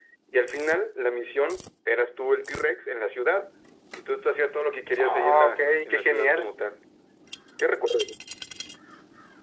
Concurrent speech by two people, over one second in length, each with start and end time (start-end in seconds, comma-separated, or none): 5.0-6.5